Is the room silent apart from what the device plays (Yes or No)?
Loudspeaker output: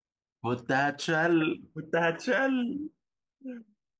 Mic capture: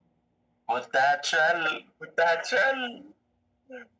Yes